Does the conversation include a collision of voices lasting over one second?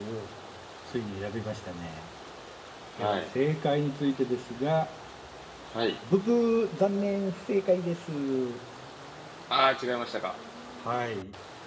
No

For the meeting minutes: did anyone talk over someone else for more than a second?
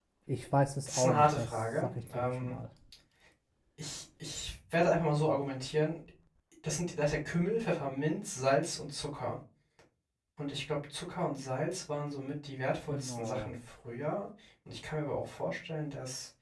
Yes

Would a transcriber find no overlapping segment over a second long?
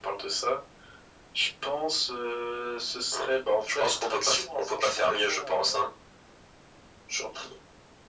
No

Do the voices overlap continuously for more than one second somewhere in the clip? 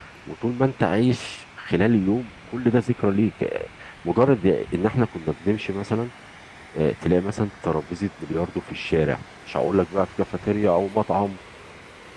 No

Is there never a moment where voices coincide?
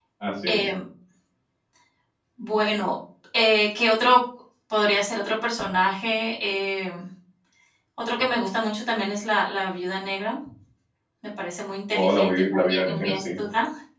No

